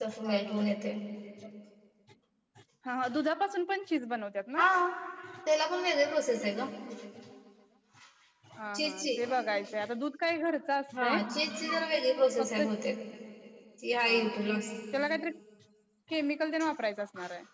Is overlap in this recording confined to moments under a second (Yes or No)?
Yes